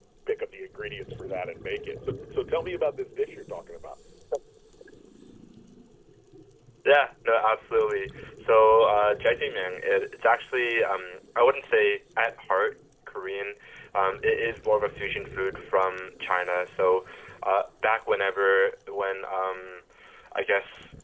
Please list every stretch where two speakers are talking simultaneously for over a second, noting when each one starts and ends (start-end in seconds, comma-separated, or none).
none